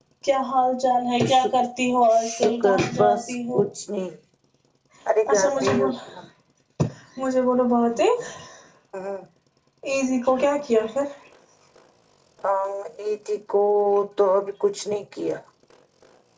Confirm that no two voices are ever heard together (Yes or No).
No